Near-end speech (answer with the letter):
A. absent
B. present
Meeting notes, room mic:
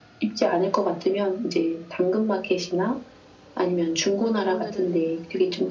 B